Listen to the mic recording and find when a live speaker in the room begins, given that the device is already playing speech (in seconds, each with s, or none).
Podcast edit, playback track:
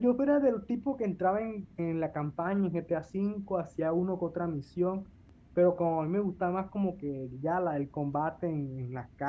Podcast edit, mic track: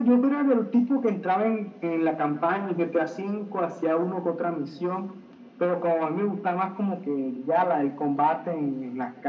none